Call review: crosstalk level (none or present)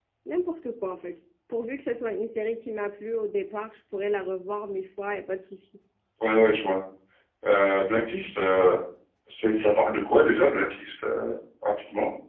none